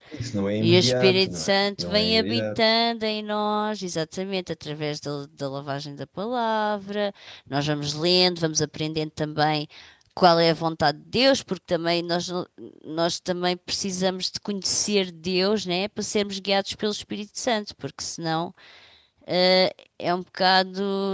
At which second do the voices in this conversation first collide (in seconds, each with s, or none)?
0.6 s